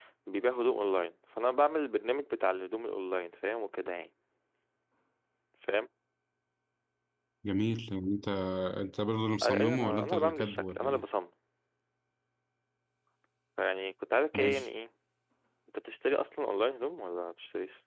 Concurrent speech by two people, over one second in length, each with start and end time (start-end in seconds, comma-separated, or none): 9.4-11.0